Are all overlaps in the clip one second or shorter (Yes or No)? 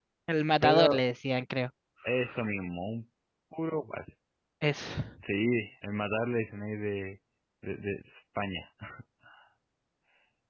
Yes